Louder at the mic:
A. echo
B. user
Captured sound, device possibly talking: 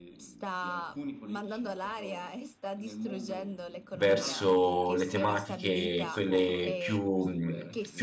B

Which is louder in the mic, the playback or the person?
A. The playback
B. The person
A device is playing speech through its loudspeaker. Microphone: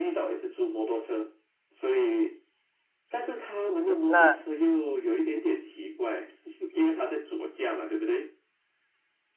B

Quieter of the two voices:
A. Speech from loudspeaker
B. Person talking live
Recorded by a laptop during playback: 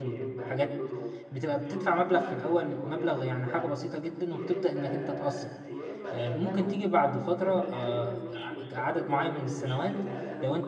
A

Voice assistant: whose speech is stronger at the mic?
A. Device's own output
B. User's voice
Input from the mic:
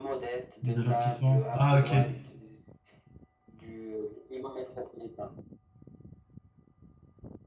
B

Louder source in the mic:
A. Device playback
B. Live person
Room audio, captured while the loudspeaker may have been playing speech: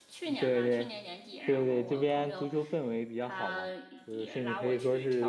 B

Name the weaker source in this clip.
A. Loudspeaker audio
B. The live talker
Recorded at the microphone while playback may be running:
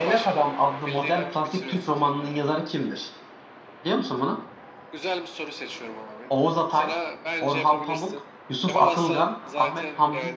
A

